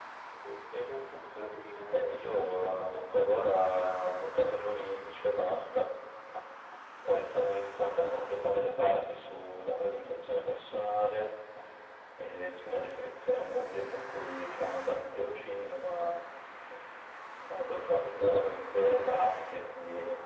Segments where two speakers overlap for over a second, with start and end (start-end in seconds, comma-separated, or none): 1.9-3.3